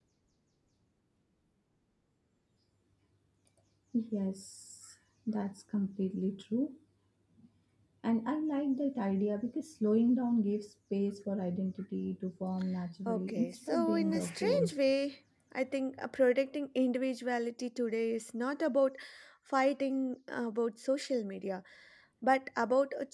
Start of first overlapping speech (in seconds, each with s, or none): 13.1 s